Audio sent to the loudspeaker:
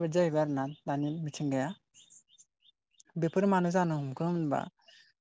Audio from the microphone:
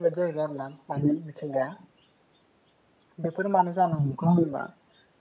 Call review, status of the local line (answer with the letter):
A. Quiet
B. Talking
A